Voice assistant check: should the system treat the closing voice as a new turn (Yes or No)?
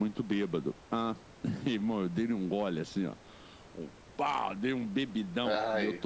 No